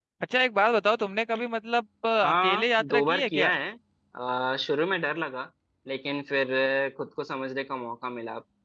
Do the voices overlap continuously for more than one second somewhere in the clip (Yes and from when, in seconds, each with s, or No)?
Yes, from 2.2 s